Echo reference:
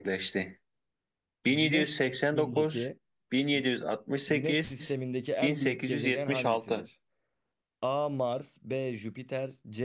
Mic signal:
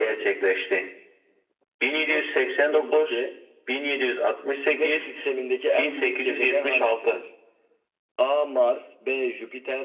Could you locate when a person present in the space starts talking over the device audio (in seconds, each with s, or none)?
none